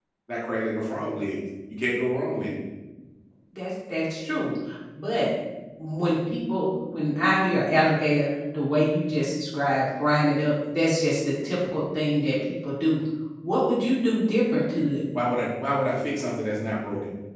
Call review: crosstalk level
none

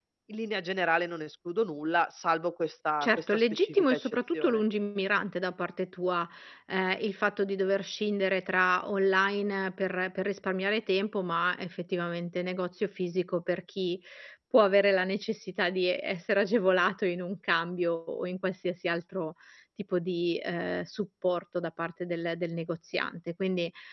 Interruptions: present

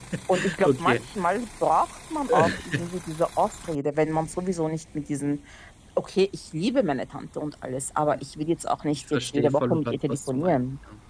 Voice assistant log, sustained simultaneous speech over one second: present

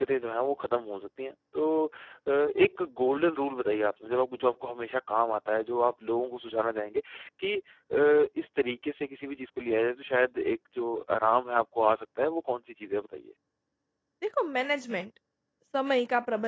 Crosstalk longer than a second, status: none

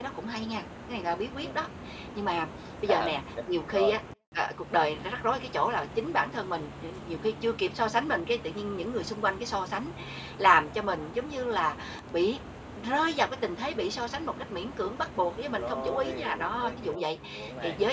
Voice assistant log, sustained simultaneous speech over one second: present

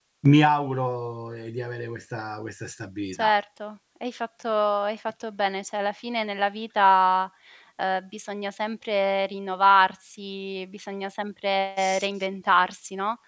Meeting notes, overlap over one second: none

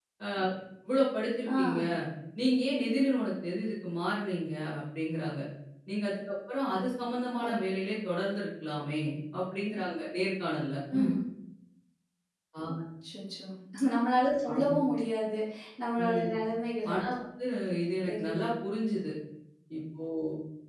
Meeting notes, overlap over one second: none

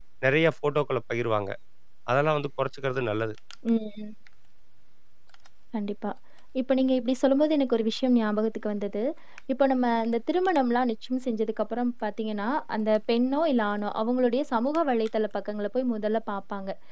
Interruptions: none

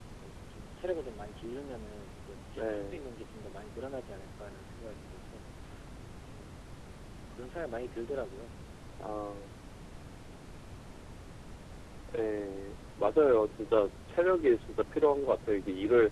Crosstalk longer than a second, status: none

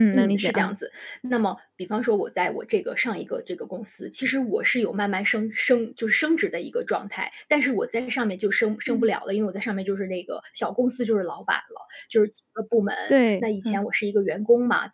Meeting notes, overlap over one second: none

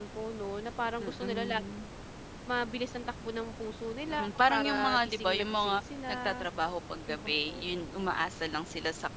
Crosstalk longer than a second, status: present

